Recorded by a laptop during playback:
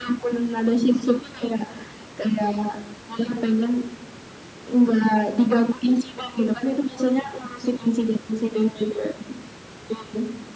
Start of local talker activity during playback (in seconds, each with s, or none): none